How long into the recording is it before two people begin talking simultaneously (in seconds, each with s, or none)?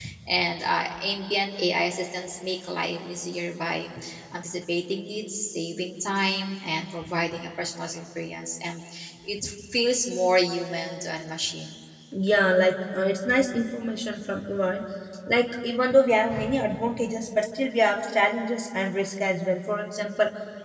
none